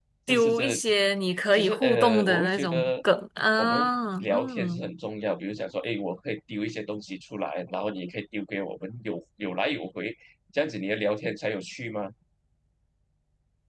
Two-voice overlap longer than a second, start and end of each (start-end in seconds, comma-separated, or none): 1.5-2.9, 3.6-4.8